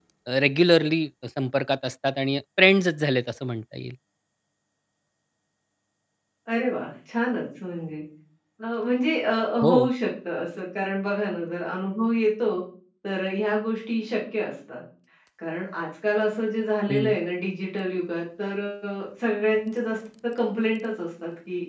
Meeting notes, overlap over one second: none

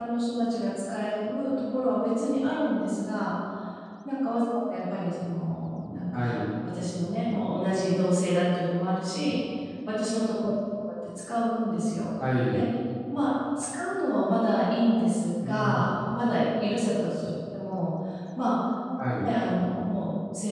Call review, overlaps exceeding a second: none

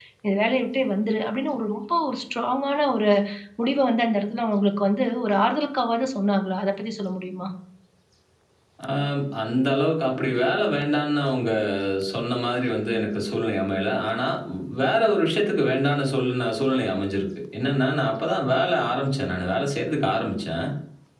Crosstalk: none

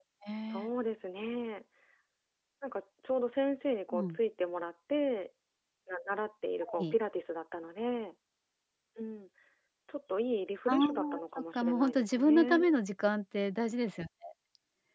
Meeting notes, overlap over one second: present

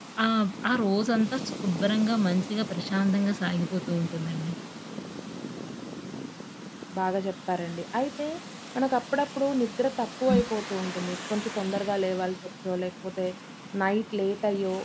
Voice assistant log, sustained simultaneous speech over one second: none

